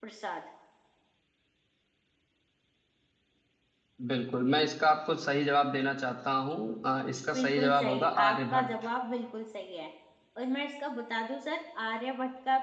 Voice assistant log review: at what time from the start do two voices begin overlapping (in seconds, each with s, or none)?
7.3 s